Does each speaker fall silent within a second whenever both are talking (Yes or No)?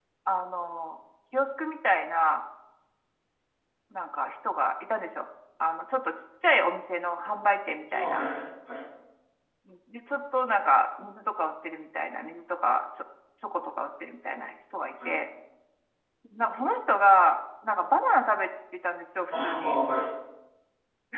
Yes